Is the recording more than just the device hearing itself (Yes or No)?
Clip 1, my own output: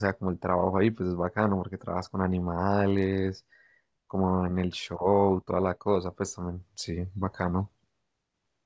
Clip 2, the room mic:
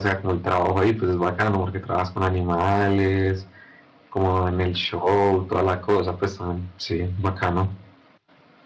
No